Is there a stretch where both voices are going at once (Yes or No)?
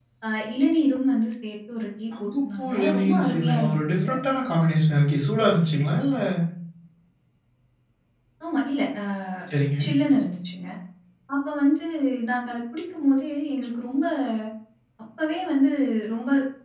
Yes